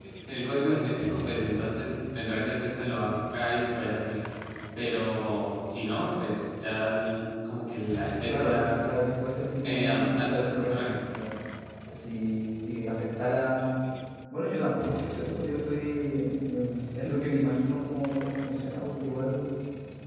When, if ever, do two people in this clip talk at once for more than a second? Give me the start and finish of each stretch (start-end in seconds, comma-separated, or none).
9.6-10.9